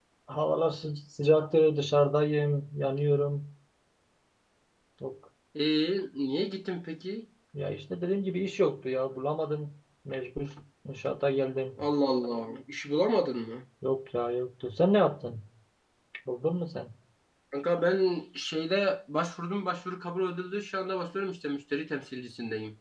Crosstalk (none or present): none